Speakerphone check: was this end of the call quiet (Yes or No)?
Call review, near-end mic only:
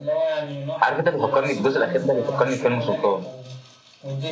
No